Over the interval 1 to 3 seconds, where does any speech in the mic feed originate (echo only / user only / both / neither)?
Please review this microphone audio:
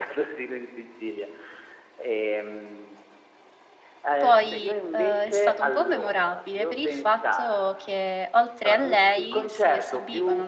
echo only